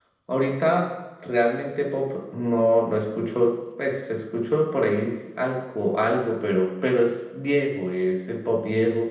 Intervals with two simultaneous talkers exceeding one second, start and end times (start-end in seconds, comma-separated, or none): none